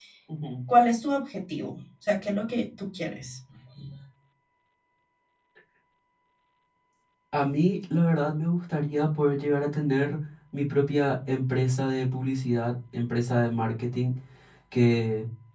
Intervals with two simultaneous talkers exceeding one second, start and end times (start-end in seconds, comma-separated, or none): none